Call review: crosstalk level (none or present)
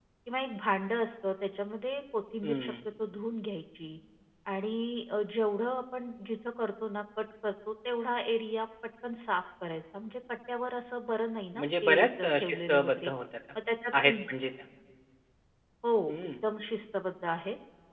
present